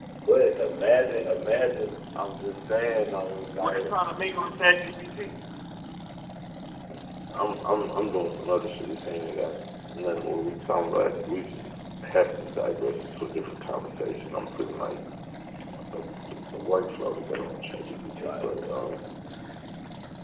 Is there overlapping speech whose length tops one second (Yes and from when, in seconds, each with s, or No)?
No